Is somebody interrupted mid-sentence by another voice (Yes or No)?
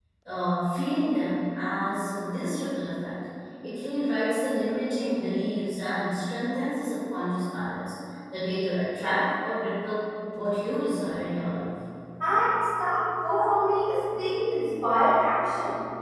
No